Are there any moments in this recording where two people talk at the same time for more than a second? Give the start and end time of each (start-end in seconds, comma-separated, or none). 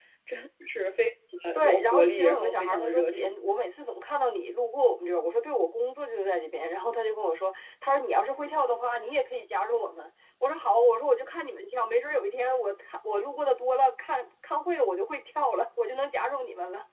1.5-3.3